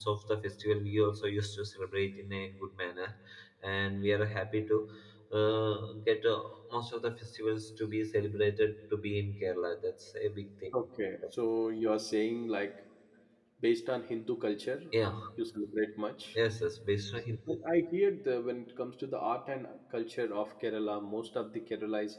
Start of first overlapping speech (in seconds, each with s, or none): none